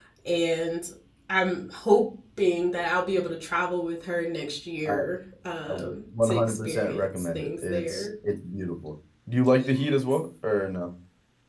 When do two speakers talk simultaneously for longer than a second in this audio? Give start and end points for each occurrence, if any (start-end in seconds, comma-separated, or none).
6.2-8.1